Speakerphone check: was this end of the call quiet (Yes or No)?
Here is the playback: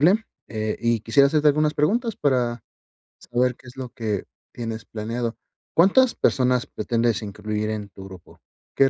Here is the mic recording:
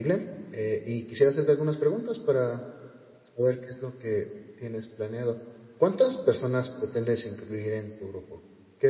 Yes